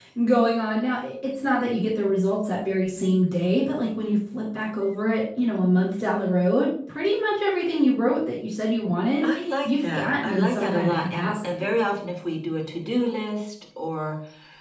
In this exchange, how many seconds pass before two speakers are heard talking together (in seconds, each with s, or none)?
9.7 s